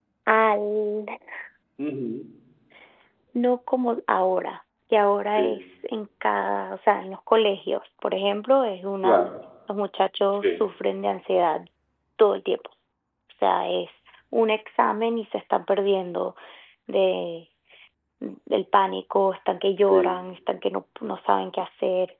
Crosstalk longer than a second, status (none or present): none